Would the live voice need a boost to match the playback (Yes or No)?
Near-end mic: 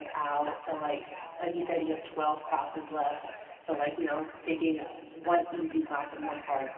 No